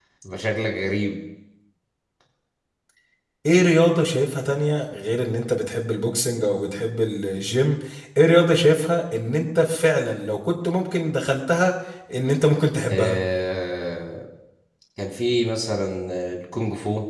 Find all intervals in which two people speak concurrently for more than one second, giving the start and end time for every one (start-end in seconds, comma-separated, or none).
none